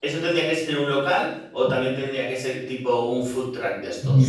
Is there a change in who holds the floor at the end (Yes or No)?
Yes